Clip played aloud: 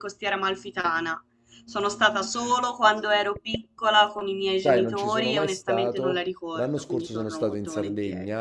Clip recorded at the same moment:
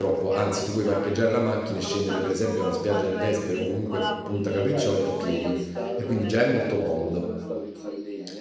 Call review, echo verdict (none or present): present